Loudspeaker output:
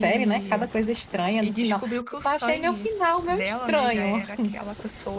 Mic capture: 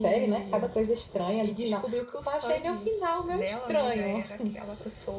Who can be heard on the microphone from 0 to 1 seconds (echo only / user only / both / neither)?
echo only